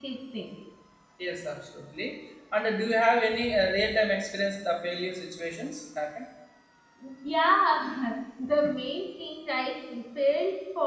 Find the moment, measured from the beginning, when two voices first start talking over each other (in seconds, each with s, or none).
none